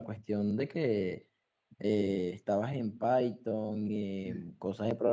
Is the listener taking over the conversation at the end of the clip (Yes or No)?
No